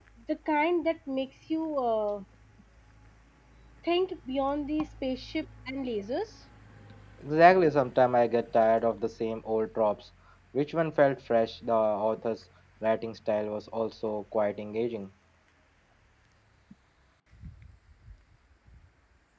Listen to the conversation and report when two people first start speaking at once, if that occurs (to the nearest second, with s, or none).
none